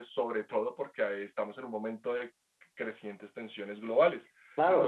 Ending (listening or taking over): taking over